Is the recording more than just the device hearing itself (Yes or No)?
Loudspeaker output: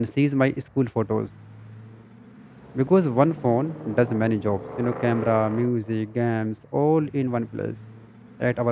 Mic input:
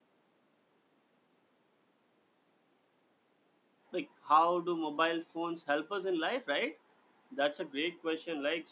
Yes